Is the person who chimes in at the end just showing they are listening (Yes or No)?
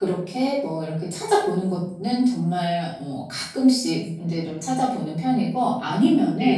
Yes